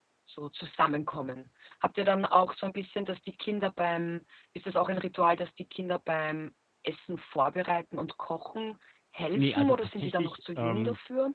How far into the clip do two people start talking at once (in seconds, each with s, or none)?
9.4 s